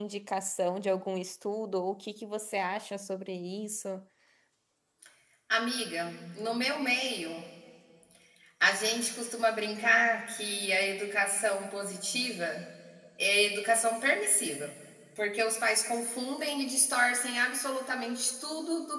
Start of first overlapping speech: none

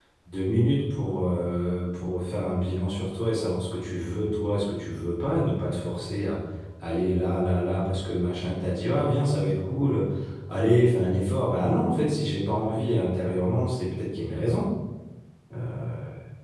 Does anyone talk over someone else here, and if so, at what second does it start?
none

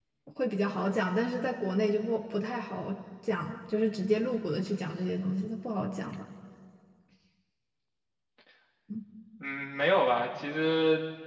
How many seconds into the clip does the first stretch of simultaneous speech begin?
none

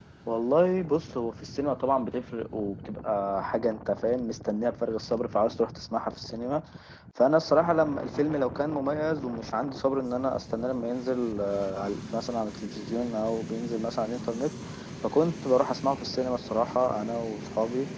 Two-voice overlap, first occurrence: none

